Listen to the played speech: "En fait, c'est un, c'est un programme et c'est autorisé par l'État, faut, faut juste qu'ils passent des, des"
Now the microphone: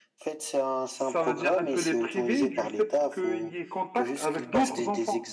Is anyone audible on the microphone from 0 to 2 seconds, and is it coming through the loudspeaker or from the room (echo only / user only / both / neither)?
both